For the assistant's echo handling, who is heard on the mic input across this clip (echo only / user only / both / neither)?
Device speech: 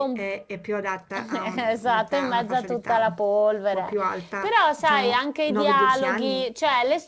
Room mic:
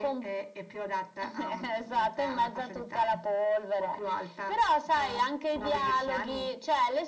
echo only